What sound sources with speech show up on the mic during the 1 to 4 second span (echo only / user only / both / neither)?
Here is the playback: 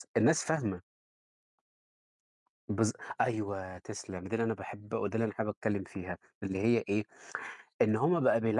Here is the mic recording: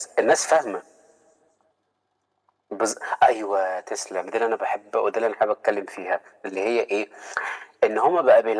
echo only